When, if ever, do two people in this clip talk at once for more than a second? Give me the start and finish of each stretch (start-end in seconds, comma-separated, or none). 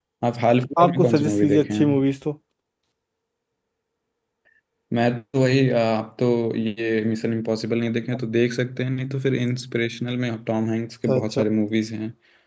0.8-2.0